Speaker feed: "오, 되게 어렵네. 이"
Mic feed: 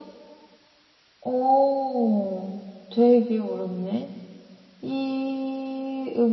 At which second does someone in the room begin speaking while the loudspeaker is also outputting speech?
none

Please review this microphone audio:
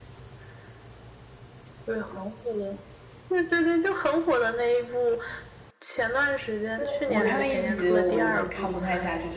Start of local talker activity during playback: 6.7 s

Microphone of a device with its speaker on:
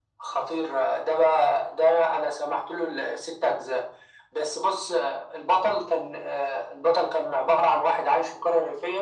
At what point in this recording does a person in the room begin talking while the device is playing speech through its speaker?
none

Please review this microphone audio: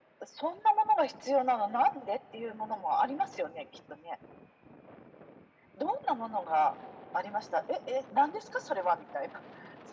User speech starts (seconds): none

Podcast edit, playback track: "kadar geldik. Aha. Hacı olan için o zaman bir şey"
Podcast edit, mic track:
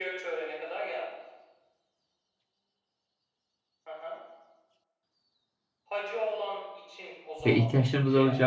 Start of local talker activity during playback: 7.5 s

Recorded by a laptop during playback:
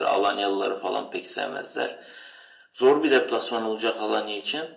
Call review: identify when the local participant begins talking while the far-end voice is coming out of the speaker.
none

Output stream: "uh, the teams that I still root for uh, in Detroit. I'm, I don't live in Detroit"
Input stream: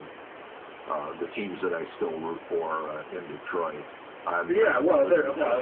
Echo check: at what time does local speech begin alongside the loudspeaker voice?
4.5 s

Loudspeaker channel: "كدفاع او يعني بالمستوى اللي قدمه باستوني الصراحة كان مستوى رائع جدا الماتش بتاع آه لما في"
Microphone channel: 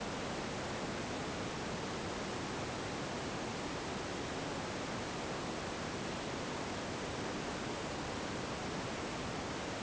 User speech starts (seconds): none

